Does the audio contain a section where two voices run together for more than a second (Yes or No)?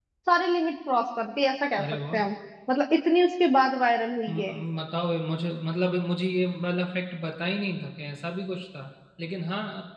No